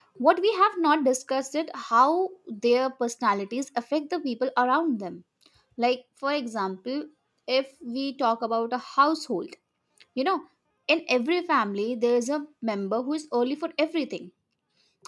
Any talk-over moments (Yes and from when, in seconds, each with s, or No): No